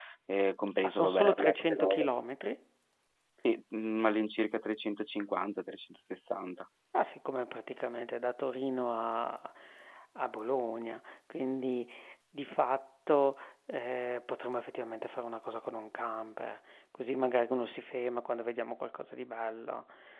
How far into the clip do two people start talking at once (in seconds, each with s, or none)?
0.8 s